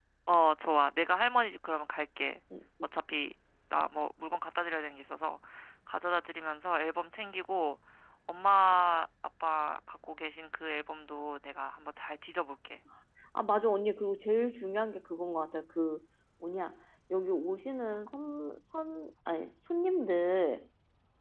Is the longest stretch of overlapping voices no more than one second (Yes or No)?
Yes